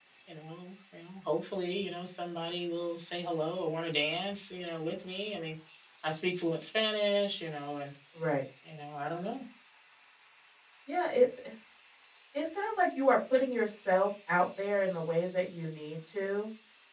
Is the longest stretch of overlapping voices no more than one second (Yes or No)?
Yes